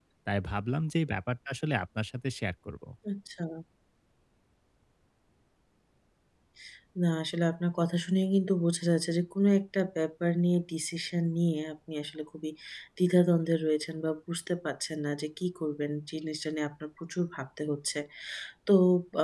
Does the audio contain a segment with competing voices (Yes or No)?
No